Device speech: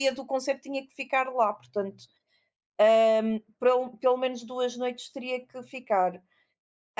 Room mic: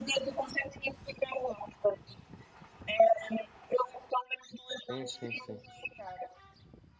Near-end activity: present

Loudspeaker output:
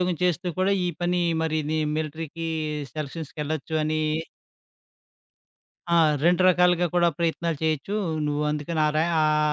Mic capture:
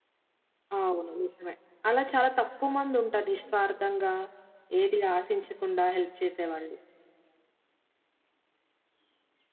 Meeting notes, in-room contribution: present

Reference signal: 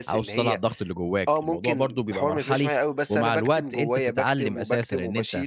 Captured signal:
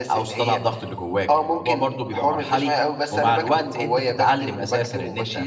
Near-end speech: none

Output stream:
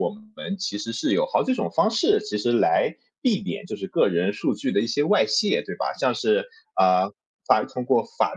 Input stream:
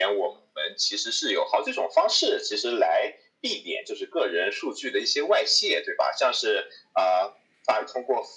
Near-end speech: none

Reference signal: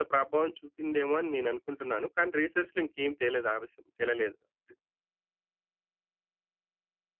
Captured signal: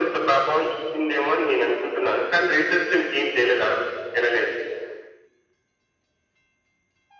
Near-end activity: none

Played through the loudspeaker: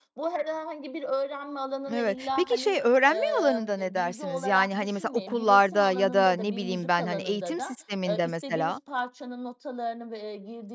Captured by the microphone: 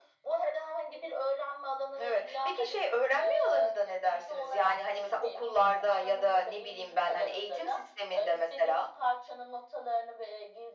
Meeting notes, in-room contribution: none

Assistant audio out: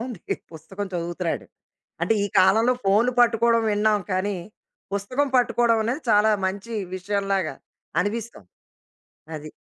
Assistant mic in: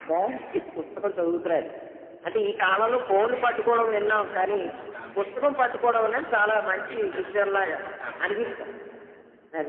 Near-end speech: present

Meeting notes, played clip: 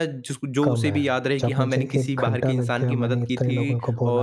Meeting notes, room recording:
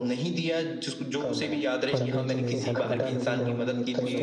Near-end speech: present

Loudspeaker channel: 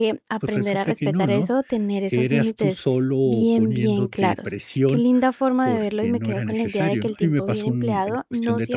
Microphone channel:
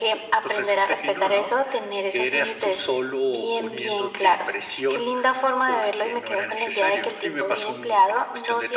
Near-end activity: none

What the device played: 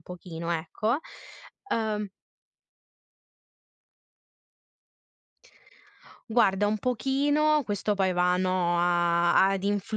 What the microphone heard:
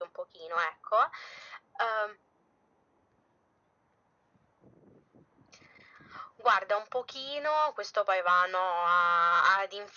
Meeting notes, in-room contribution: none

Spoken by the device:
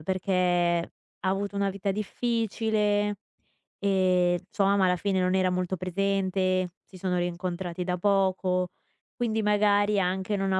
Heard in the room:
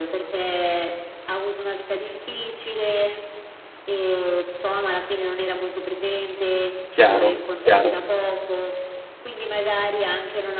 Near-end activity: present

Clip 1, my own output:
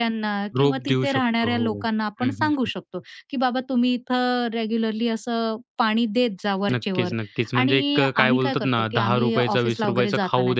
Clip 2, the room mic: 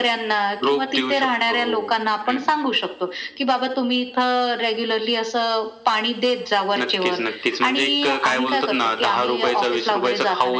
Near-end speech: none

